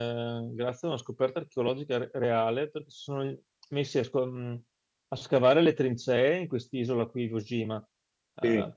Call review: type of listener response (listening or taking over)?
listening